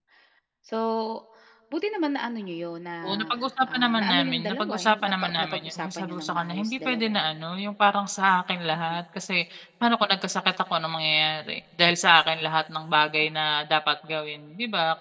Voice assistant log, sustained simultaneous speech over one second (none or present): present